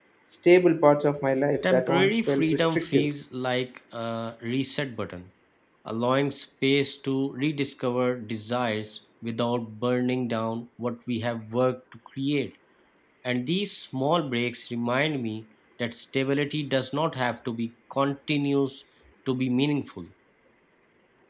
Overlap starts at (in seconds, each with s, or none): 1.6 s